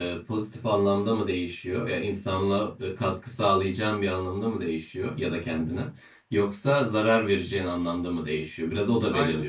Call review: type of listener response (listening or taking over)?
listening